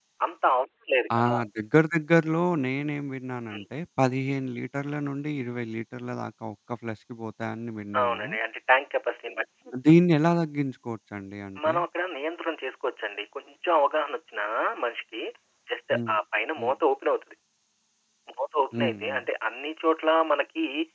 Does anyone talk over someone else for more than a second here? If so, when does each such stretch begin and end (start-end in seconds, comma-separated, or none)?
none